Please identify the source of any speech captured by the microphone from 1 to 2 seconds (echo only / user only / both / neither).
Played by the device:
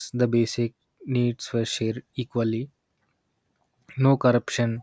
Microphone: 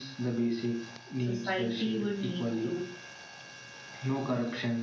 both